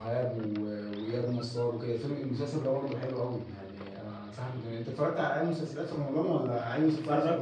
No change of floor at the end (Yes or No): No